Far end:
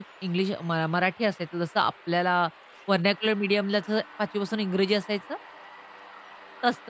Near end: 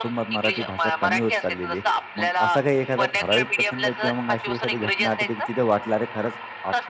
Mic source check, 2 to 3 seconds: both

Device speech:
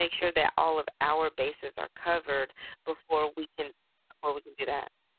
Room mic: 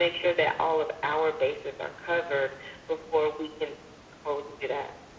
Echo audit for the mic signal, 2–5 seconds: echo only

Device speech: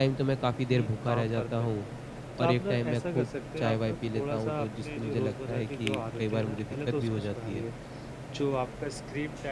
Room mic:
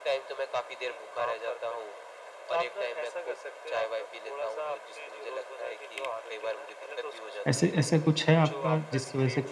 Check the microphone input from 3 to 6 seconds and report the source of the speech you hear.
echo only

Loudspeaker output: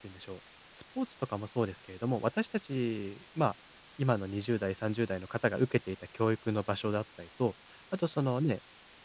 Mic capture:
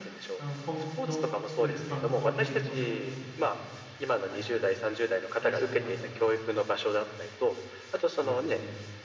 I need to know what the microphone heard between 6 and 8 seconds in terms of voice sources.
both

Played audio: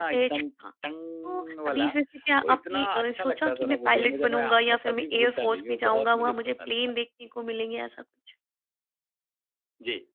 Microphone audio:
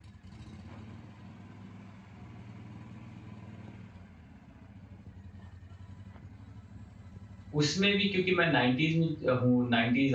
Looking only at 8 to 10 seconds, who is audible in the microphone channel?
user only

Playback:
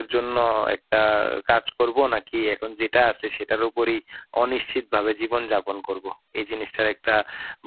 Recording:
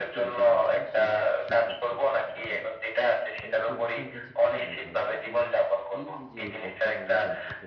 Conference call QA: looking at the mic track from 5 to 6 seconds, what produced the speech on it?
both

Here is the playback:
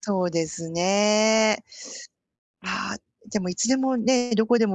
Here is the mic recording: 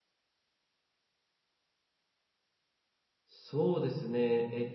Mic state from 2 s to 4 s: user only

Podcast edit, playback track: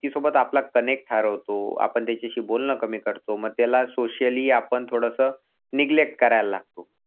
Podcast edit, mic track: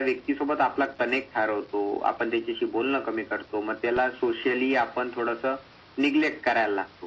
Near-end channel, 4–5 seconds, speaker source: echo only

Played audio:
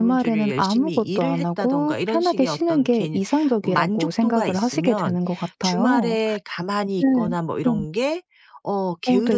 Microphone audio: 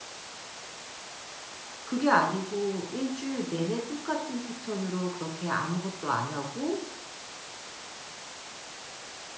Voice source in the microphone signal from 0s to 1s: neither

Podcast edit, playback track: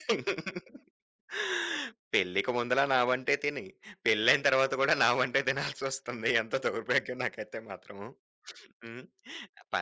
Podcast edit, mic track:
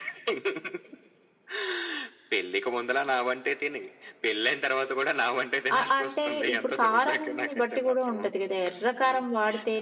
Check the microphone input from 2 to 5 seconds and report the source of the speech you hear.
echo only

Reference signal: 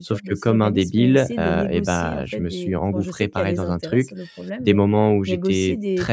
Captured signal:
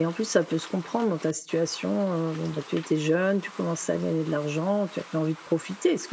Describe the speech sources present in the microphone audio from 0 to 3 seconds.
user only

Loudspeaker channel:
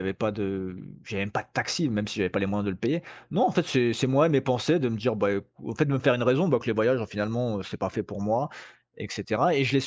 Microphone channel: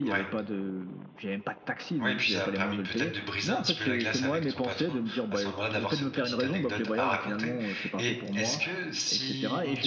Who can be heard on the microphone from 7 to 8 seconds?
both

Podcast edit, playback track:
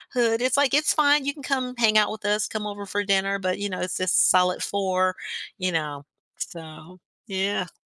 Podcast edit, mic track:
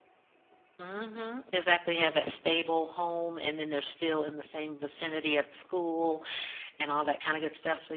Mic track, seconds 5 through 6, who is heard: user only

